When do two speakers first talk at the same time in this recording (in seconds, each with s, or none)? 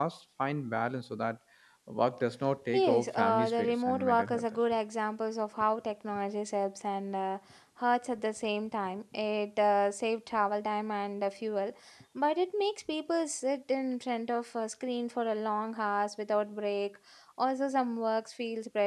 2.7 s